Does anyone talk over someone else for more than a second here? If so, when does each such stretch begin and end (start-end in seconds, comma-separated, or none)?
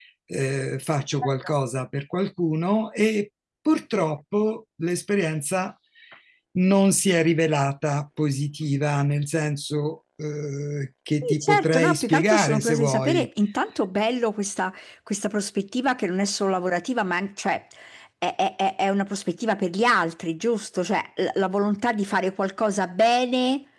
11.2-13.3